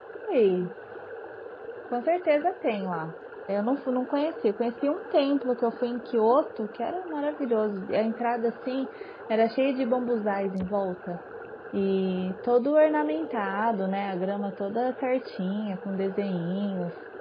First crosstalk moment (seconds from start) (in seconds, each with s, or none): none